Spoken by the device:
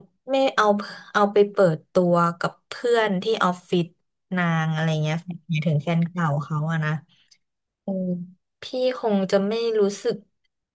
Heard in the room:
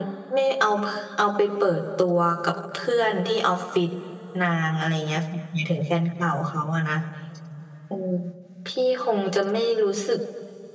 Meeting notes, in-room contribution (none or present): none